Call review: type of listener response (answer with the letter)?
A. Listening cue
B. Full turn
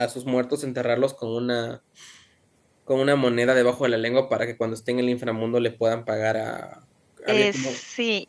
B